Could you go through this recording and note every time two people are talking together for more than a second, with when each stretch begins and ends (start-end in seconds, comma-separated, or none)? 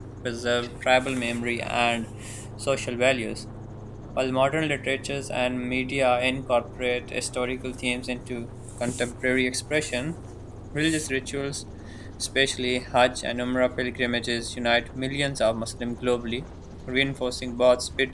none